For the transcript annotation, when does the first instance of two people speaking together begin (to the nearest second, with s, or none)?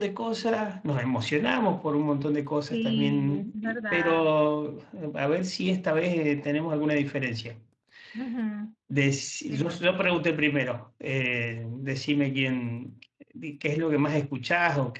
3 s